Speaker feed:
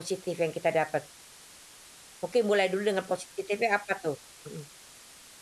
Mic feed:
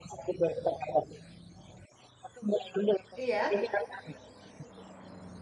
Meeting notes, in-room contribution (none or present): present